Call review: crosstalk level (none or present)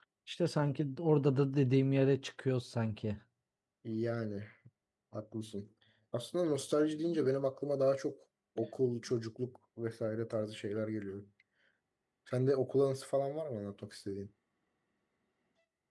none